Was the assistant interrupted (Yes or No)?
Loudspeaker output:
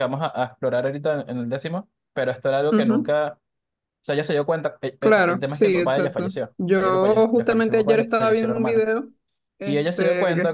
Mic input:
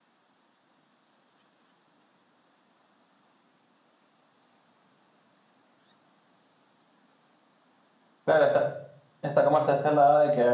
Yes